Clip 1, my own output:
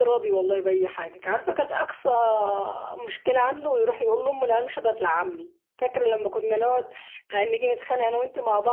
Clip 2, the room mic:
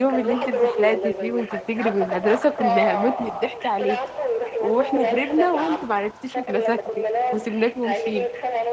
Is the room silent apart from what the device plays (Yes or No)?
No